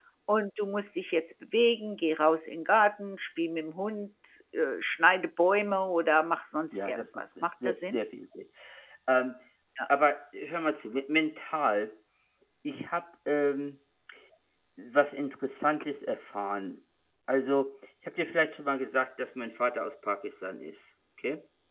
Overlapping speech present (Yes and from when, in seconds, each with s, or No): Yes, from 6.7 s